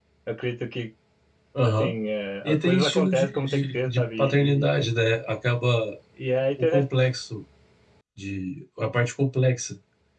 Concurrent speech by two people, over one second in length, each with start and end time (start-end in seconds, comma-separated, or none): 2.4-4.8